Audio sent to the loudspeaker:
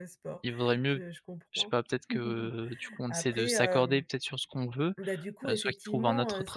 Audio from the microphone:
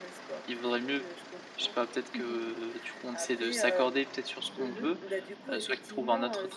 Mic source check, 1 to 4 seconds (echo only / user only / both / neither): echo only